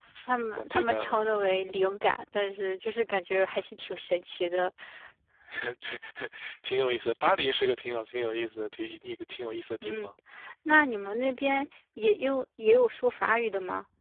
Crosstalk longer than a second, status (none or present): present